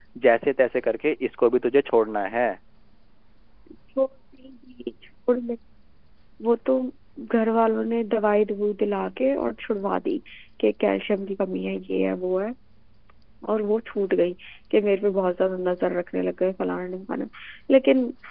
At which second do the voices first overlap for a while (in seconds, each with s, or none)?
none